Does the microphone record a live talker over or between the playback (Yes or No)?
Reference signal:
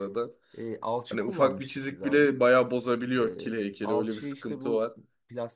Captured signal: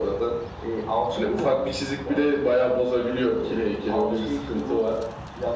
No